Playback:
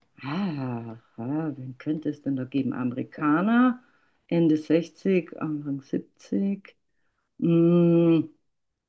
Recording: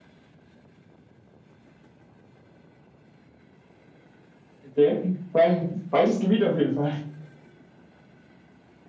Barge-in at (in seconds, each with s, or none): 4.7 s